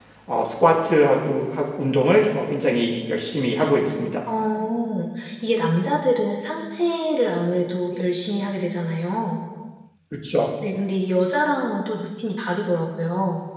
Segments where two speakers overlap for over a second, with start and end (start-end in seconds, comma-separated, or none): none